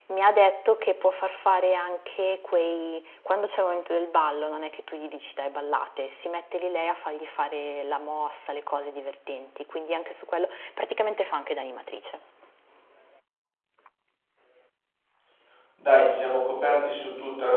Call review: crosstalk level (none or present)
none